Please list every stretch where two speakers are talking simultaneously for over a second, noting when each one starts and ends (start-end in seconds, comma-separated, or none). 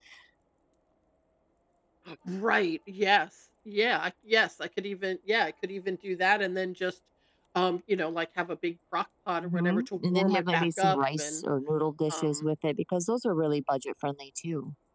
9.4-11.4